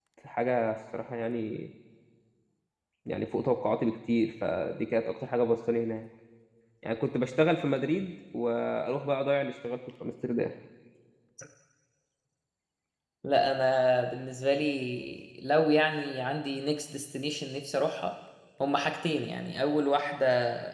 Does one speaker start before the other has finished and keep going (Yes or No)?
No